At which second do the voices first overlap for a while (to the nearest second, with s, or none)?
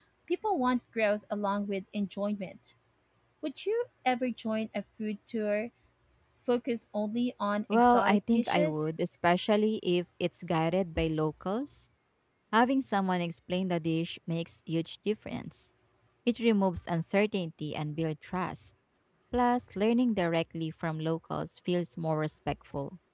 8 s